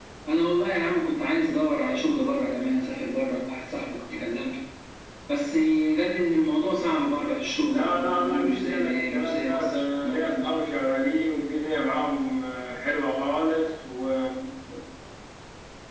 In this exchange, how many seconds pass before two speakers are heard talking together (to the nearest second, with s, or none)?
8 s